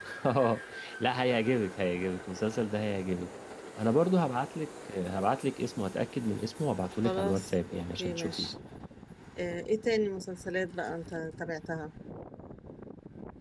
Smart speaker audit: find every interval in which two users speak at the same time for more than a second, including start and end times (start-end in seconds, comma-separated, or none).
7.0-8.5